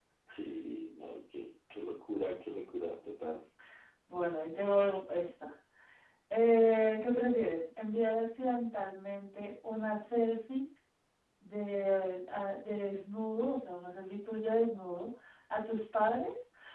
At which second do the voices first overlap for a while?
none

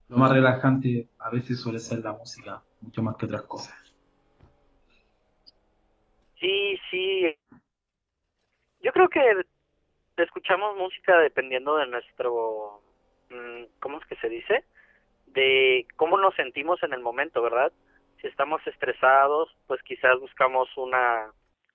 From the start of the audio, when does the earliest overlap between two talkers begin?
none

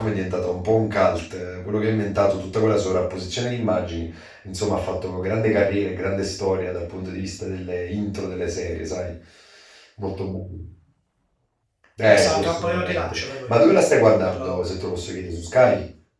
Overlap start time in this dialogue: 12.0 s

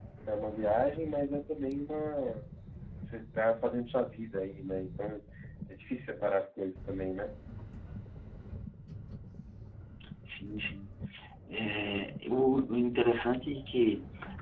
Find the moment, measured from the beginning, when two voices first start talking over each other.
none

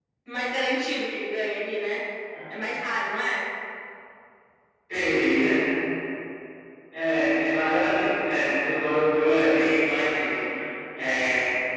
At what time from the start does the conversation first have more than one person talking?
none

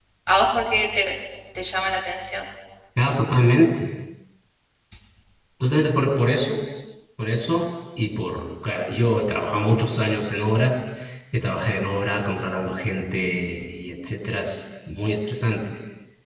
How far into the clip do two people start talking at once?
none

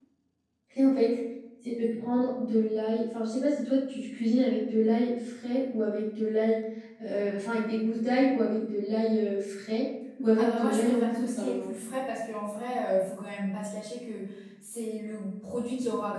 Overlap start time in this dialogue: 10.4 s

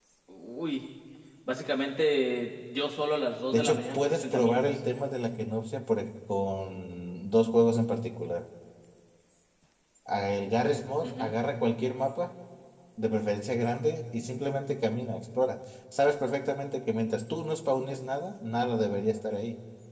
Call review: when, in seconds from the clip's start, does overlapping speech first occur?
3.5 s

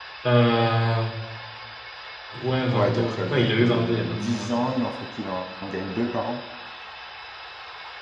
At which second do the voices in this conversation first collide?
2.7 s

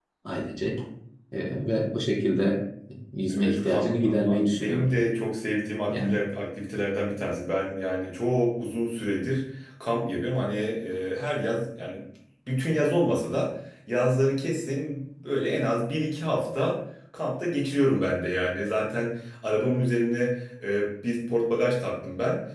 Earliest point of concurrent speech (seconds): 3.3 s

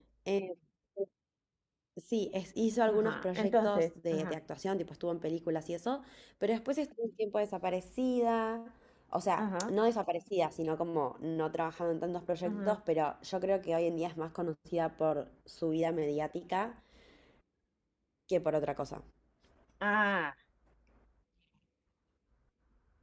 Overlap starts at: 2.9 s

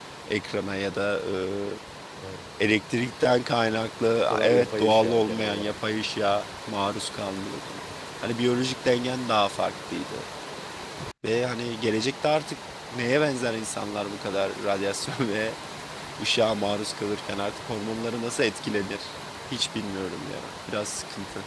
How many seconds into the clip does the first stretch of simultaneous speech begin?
4.2 s

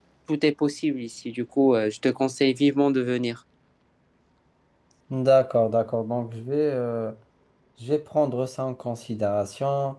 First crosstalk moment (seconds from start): none

